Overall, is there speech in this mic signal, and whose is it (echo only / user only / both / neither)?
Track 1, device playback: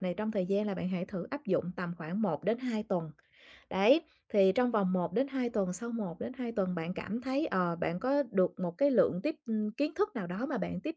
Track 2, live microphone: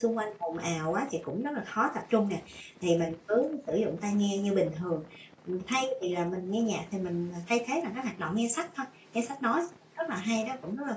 user only